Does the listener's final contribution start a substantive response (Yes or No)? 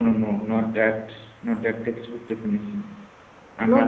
No